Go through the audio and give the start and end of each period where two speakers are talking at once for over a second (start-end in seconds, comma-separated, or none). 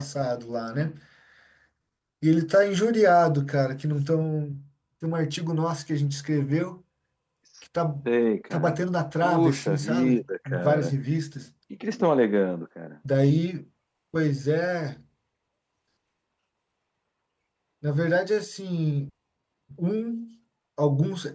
9.2-10.9